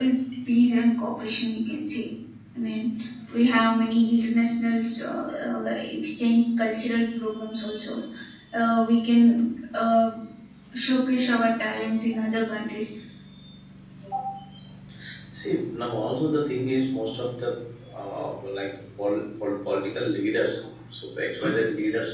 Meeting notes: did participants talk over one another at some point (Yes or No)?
No